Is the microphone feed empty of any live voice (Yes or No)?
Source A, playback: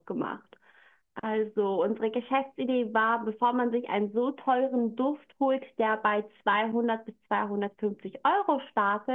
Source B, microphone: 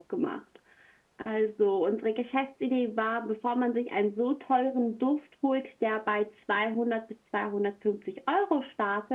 Yes